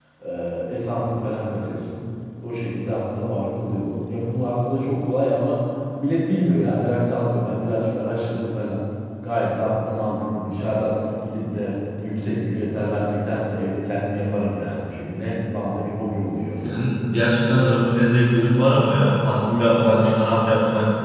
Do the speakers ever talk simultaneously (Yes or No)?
No